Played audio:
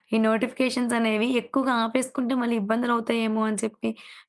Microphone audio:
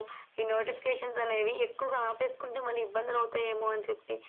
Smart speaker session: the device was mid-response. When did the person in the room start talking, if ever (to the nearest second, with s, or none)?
none